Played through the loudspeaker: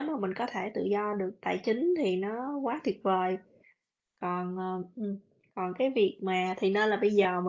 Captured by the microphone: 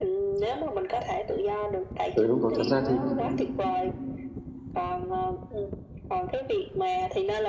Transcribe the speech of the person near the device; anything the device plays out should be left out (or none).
Ừ, đúng rồi, thật ra thì